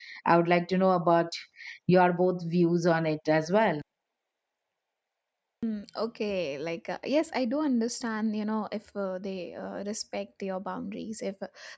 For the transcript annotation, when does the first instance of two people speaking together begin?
none

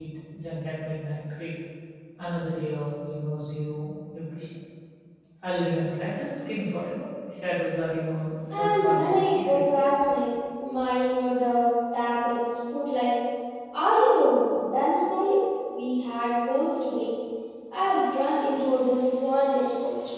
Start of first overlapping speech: 9 s

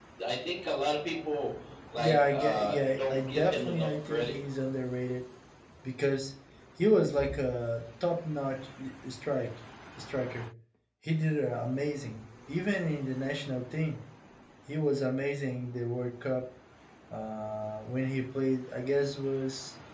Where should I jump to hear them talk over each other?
2 s

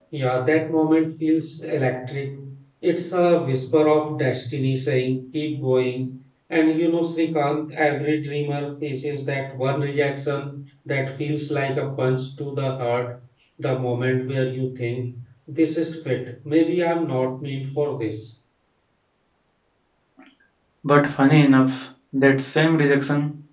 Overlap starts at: none

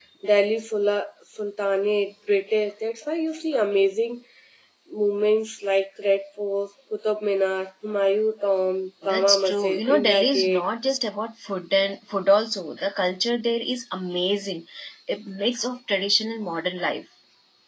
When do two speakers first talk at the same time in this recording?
9 s

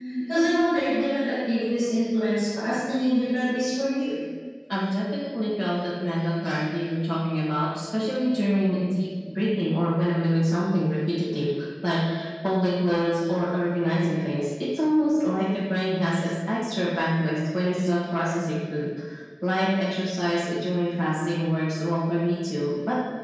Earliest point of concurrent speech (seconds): none

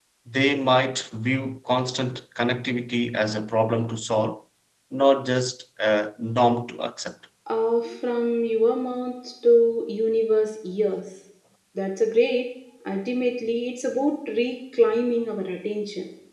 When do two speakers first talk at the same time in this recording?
none

